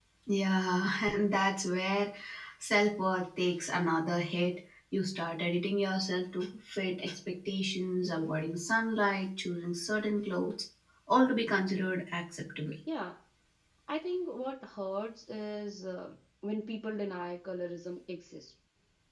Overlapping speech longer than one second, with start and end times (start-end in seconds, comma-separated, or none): none